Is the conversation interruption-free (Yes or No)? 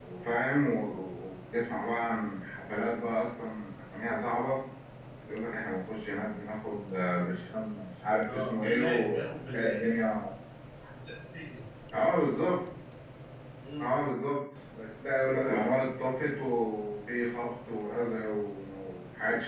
No